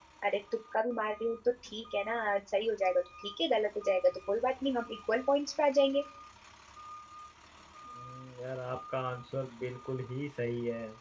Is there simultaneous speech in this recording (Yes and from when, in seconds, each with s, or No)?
No